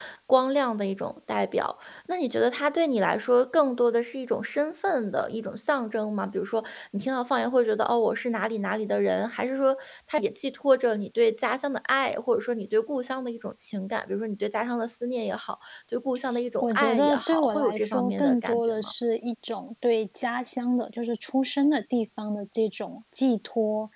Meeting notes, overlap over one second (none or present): present